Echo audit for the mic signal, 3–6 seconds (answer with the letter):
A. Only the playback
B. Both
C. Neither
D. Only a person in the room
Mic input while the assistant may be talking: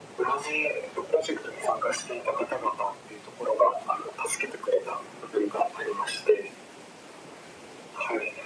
A